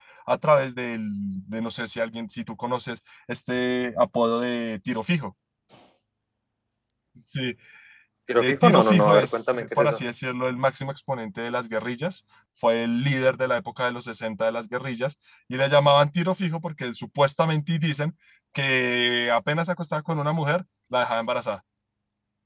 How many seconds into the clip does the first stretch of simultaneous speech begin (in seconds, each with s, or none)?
8.4 s